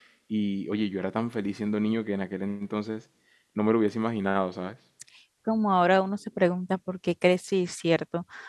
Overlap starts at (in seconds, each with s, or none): none